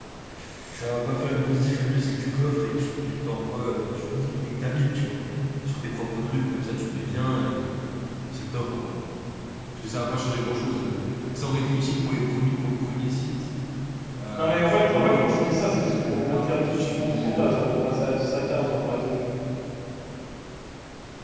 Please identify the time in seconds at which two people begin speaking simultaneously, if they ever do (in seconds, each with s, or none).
14.4 s